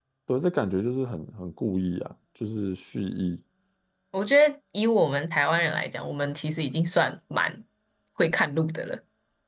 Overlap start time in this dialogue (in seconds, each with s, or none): none